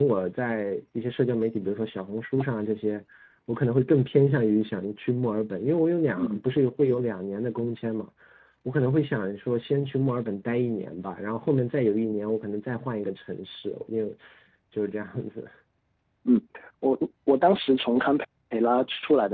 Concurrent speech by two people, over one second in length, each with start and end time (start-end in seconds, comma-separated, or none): none